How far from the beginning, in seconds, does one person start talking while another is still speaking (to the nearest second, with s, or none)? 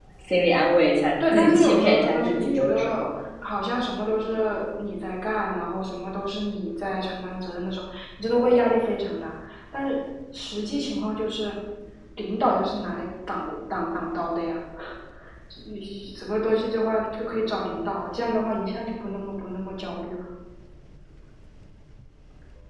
1 s